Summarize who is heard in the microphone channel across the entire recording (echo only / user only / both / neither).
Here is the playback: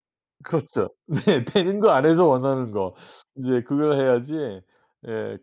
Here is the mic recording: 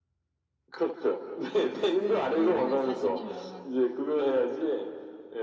both